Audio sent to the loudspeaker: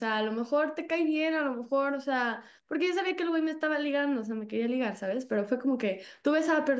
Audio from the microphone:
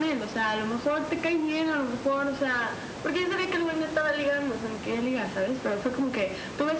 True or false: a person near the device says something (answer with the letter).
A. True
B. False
B